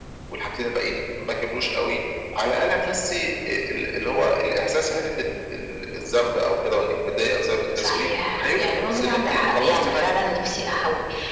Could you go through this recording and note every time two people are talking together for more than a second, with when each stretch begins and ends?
7.8-10.0

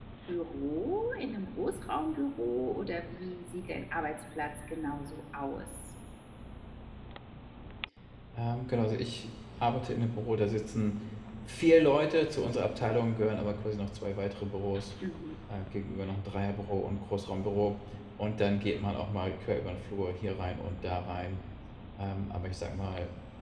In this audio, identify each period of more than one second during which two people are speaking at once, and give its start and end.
none

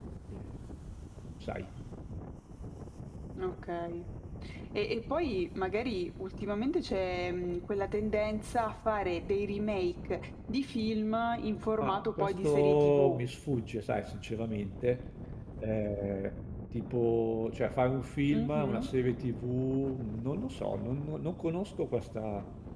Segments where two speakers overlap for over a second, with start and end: 11.8-13.2

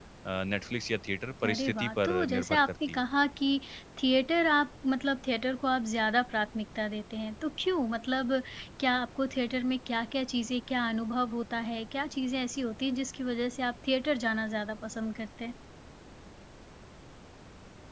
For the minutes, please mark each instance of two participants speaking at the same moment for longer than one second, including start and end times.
1.4-3.0

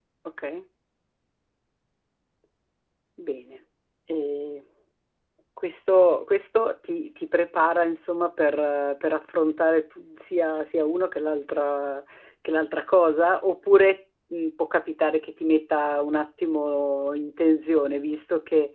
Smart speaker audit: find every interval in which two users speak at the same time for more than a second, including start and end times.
none

